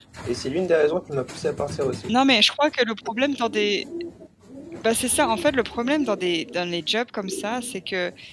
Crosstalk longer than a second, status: none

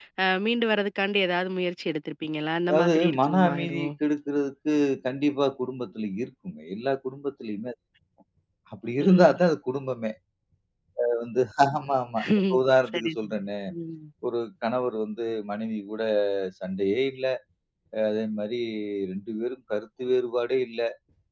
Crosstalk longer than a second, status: present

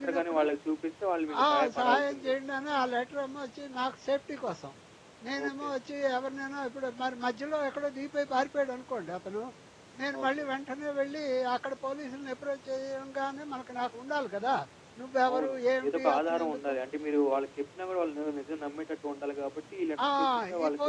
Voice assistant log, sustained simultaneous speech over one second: present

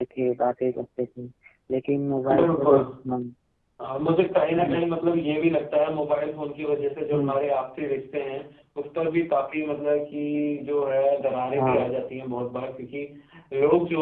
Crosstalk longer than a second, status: none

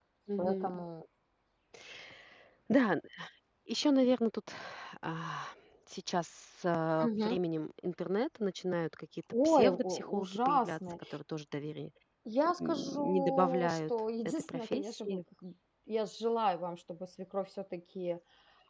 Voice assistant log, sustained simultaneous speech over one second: present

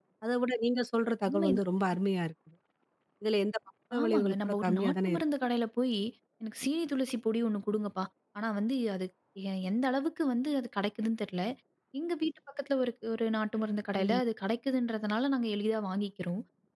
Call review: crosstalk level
present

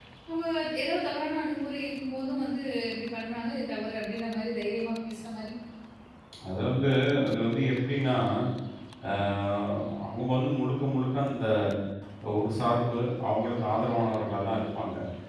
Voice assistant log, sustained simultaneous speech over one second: none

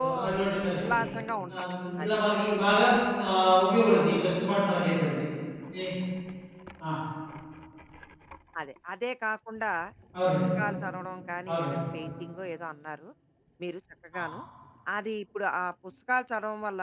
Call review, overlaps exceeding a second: none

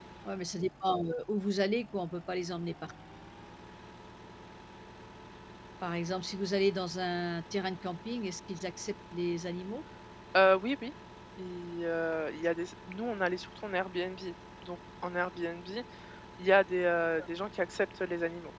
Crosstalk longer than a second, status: none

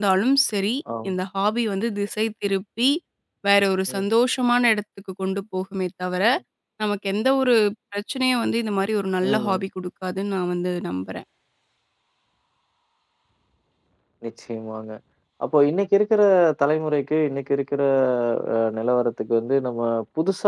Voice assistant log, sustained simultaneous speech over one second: none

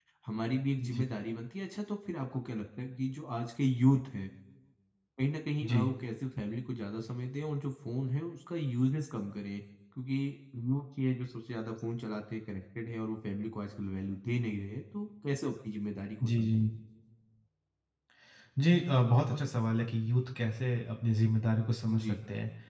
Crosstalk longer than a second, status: none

